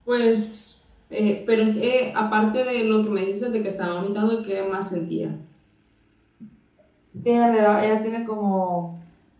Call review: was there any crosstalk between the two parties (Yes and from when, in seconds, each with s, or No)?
No